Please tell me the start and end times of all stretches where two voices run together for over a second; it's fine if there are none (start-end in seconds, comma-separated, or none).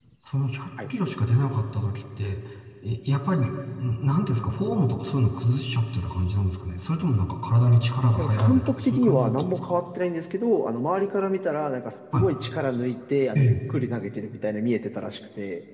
8.2-9.7